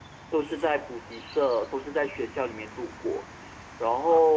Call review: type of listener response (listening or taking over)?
listening